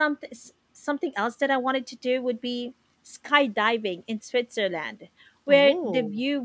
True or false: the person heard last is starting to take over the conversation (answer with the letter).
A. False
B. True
A